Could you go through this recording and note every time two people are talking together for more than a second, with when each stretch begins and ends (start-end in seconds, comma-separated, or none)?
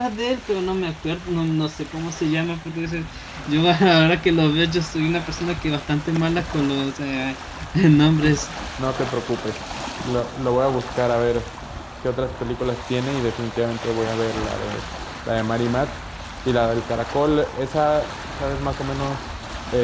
none